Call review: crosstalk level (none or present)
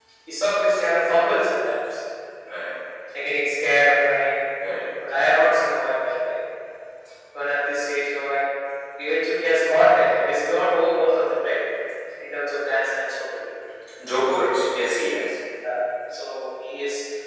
none